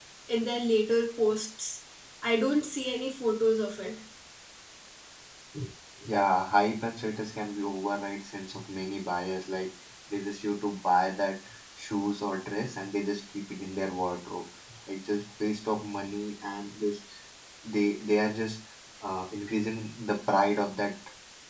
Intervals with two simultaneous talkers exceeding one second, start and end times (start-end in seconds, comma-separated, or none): none